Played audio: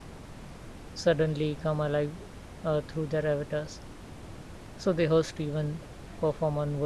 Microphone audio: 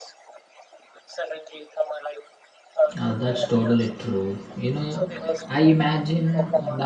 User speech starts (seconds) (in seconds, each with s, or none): 3.0 s